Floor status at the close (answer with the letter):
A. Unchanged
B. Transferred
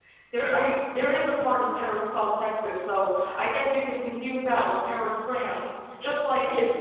A